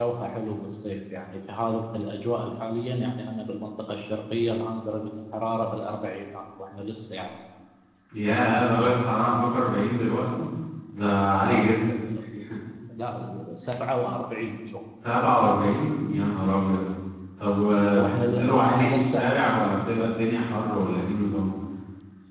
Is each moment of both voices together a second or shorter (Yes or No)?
No